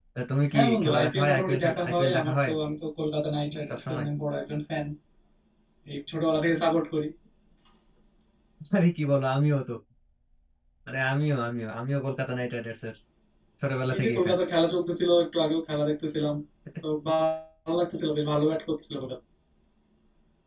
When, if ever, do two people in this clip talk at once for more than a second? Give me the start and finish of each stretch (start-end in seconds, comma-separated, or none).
0.5-2.5